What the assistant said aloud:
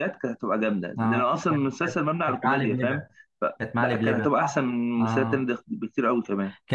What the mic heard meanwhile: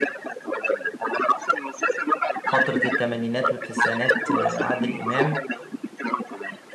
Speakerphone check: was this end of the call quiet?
No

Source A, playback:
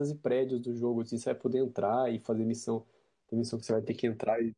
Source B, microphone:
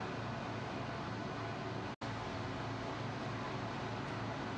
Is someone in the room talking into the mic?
No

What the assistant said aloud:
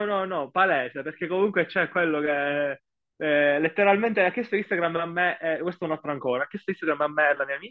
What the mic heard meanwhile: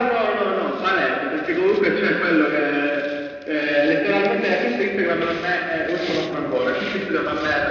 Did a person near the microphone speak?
No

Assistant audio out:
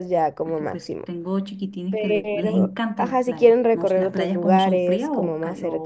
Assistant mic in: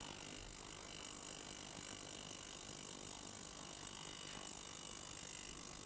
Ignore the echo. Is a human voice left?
No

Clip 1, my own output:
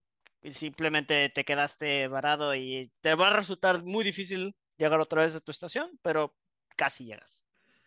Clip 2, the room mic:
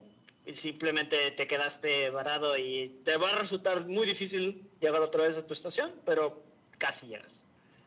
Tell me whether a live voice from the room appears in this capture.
No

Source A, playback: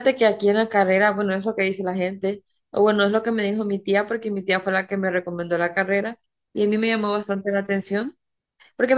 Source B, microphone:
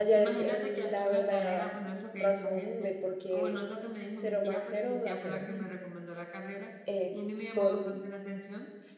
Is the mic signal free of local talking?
No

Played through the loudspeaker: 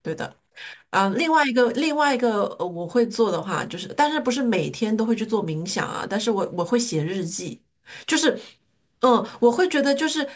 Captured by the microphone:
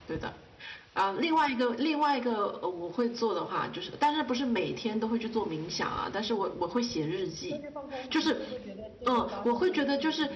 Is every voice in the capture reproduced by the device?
No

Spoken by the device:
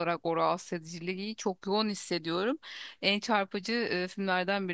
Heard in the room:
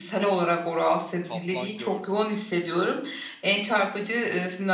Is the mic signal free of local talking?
No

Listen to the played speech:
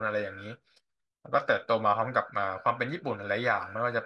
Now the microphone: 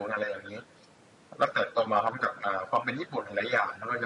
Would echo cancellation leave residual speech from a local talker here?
No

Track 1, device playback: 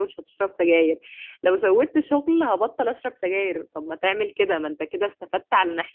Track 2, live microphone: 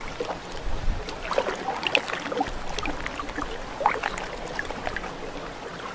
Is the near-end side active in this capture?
No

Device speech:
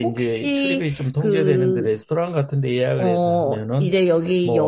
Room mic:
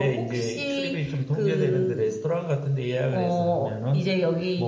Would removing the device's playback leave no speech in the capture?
Yes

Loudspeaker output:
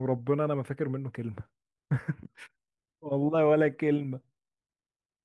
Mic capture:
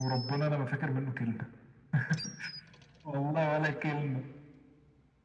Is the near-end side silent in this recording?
Yes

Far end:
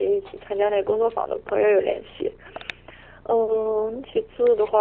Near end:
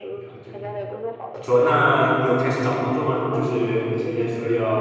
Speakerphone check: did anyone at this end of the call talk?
Yes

